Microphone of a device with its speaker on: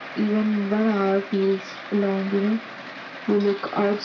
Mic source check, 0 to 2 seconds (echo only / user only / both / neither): echo only